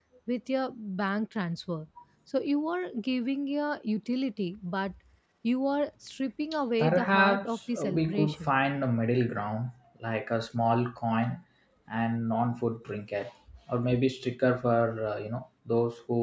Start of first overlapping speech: 7 s

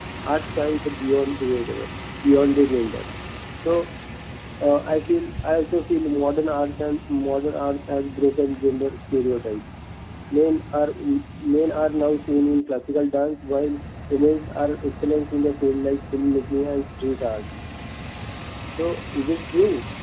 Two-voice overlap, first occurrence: none

